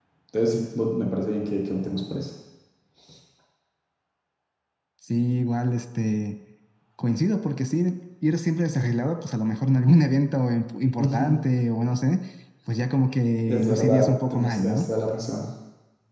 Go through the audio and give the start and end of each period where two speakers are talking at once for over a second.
13.5-14.8

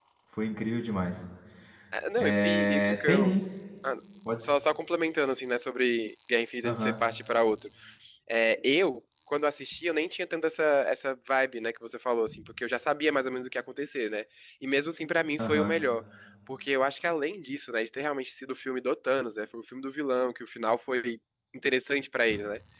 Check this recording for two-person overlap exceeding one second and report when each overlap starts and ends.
2.2-3.4

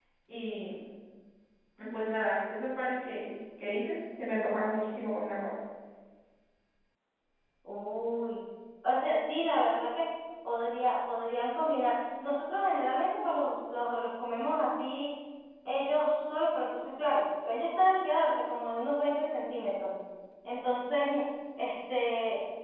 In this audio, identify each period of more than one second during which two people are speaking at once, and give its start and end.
none

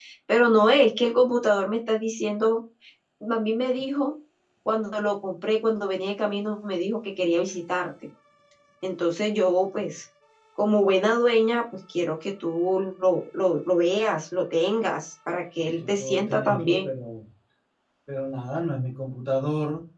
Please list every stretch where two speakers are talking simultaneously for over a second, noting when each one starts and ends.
15.6-16.9

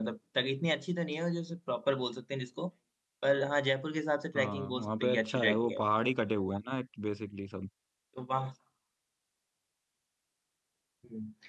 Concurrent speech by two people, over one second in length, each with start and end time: 4.3-5.8

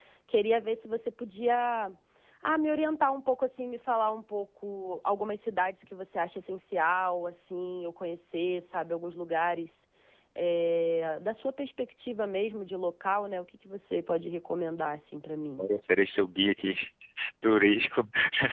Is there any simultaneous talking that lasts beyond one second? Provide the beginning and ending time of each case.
none

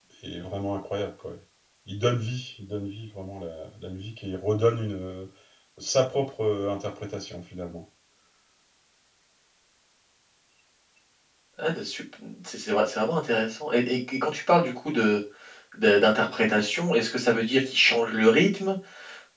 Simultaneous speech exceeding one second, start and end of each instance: none

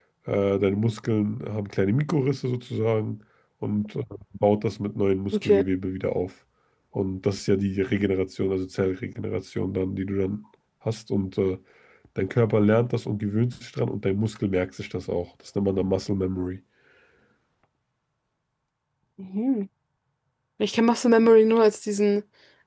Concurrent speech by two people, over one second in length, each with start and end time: none

